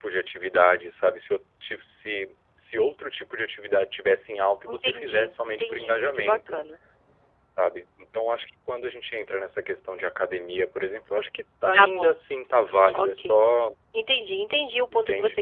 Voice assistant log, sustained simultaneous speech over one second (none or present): present